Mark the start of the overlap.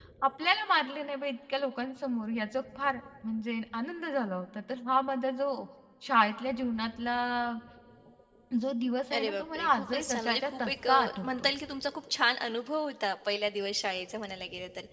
9 s

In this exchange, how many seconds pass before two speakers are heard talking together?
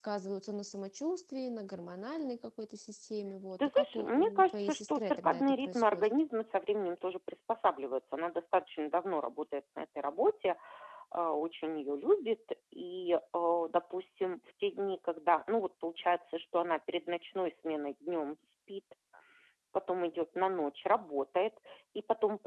4 s

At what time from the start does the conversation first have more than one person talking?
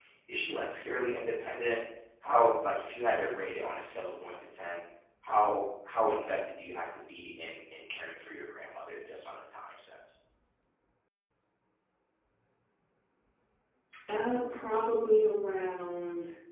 none

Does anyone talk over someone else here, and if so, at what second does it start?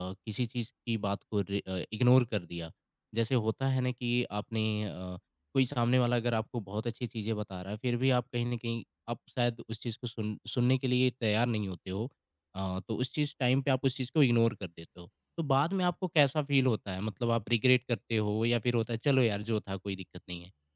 none

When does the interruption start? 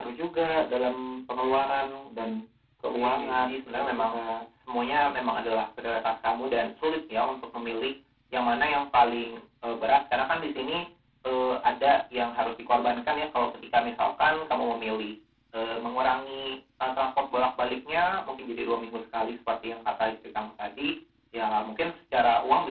3 s

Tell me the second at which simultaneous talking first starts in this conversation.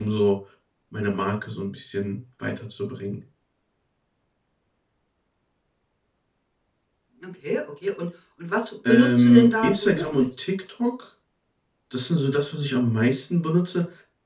9 s

